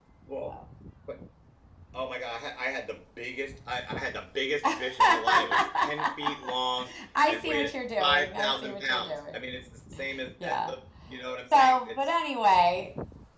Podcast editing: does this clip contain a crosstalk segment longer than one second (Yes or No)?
Yes